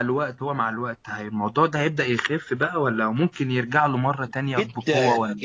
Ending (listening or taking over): taking over